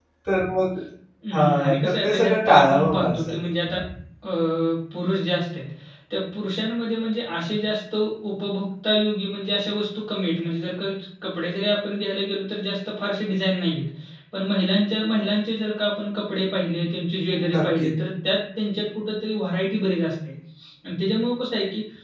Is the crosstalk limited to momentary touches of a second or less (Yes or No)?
No